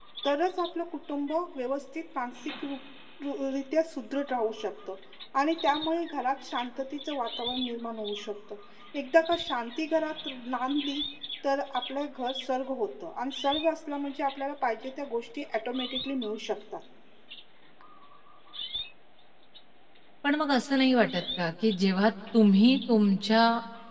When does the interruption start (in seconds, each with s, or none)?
none